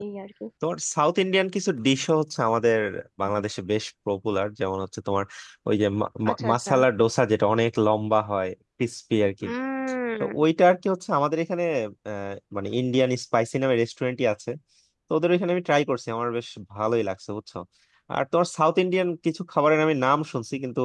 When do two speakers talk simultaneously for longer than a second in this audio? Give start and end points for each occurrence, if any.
none

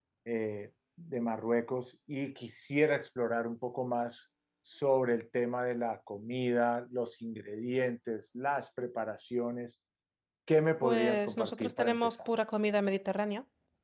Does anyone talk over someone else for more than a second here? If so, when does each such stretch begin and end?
10.8-12.2

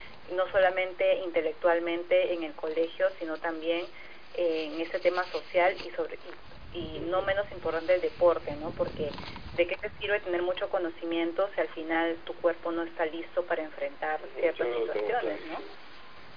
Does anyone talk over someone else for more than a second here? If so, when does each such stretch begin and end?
14.2-15.6

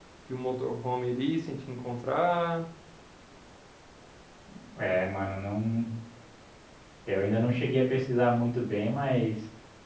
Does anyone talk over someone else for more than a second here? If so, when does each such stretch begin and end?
none

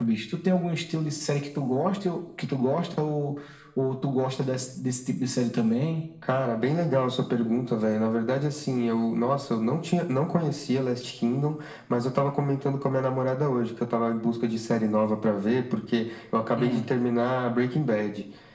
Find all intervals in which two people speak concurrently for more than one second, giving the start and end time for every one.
none

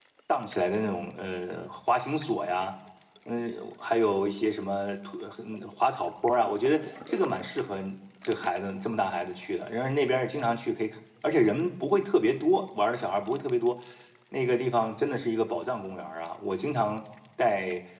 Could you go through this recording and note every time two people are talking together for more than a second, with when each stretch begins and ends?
none

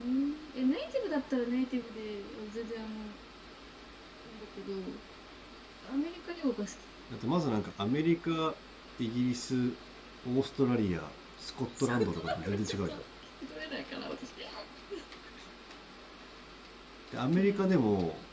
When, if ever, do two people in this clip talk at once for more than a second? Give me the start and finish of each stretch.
11.8-13.0

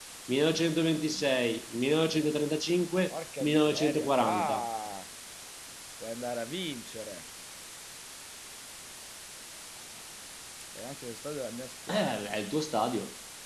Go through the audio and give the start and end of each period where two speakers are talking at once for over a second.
3.1-4.6

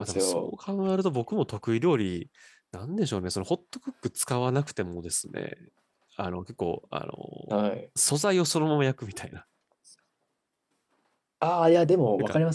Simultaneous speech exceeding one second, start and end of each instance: none

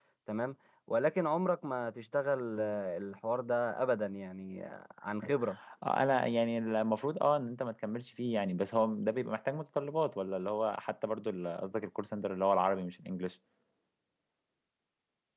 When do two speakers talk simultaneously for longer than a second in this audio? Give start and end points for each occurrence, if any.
none

